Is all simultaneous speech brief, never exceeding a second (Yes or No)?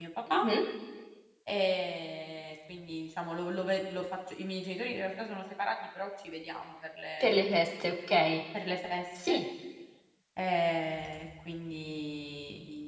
Yes